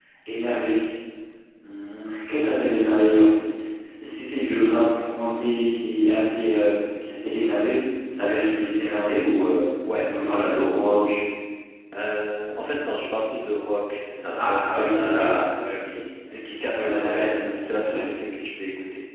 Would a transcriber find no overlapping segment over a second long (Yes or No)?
No